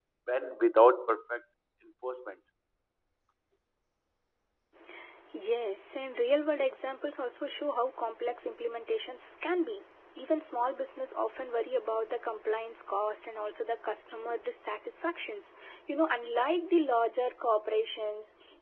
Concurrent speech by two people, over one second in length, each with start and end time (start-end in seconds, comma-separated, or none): none